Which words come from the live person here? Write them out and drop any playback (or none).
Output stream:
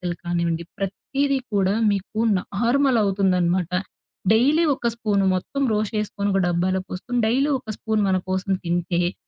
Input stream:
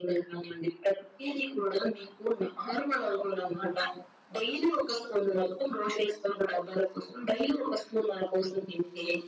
none